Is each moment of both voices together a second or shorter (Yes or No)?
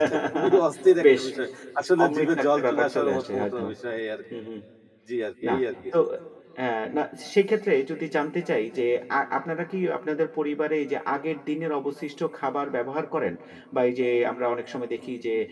No